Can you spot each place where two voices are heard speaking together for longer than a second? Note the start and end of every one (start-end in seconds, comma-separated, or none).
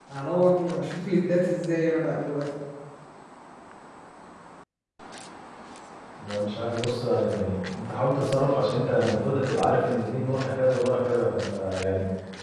none